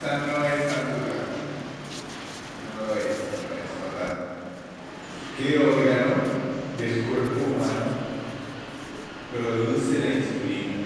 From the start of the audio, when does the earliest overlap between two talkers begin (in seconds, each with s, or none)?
none